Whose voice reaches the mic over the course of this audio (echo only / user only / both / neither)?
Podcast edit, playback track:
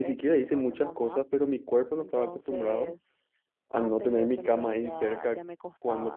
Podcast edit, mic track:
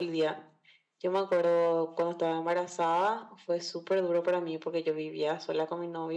user only